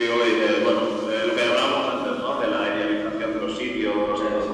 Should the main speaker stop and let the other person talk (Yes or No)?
No